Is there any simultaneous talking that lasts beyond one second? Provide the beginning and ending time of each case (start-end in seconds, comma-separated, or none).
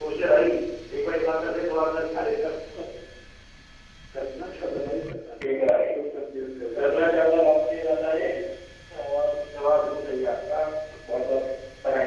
none